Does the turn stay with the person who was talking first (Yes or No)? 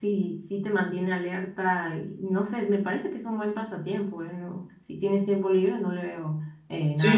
No